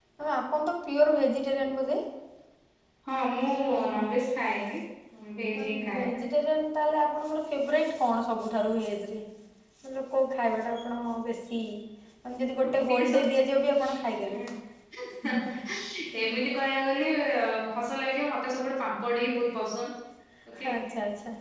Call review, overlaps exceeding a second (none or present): none